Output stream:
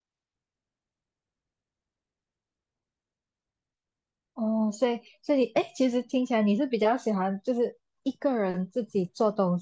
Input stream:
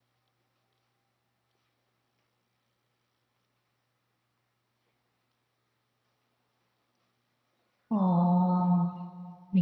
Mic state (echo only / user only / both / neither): user only